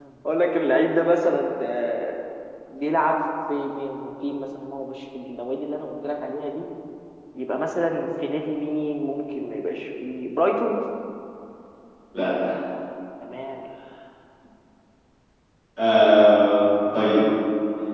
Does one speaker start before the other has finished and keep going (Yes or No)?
No